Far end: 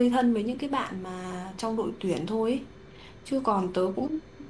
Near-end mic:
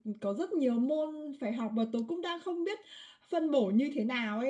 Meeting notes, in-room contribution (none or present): present